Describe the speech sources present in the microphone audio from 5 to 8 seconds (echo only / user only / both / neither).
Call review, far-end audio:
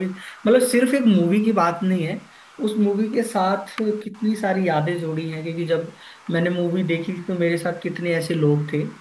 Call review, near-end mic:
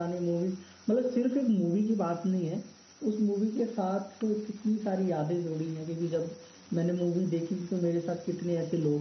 echo only